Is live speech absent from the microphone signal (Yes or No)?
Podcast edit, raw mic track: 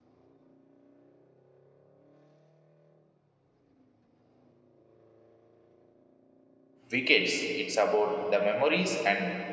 No